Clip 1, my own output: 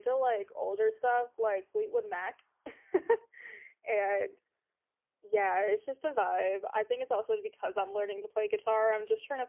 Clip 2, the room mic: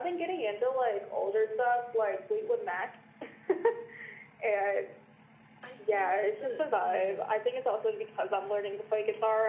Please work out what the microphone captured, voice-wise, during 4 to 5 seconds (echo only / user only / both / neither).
echo only